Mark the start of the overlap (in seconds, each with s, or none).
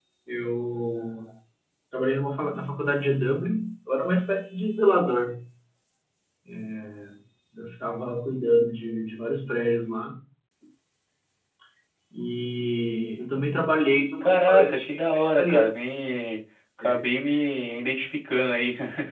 14.2 s